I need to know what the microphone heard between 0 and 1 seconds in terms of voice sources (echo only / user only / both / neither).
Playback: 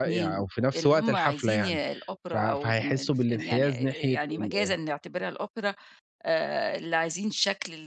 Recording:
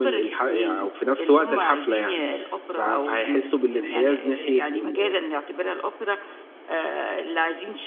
echo only